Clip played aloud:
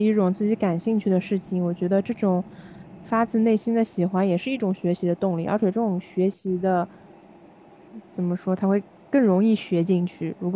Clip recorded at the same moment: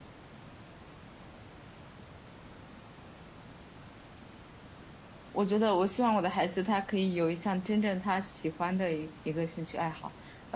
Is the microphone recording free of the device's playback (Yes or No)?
Yes